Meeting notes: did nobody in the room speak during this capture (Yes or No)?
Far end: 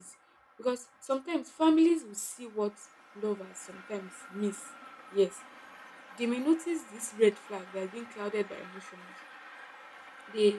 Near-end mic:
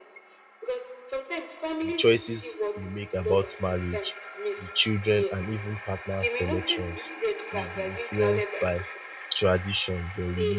No